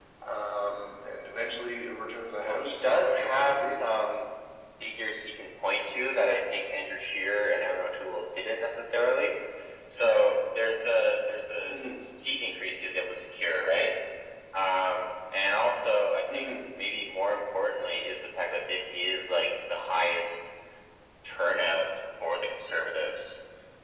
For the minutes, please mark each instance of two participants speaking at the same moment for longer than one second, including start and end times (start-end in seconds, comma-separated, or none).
2.4-3.8